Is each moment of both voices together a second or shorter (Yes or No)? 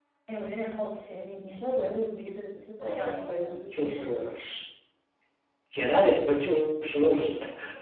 No